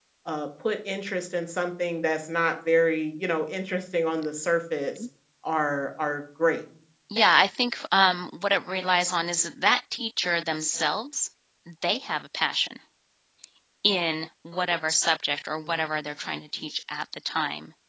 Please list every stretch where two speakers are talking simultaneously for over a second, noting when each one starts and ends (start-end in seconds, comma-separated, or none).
none